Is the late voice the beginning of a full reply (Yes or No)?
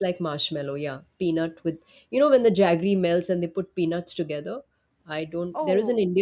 No